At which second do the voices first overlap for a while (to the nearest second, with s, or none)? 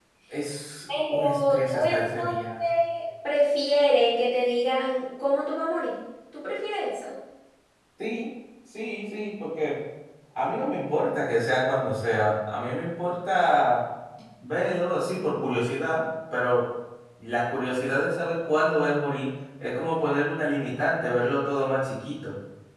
1 s